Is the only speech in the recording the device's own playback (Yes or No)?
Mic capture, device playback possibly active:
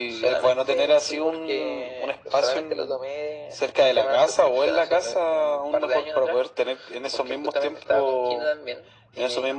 Yes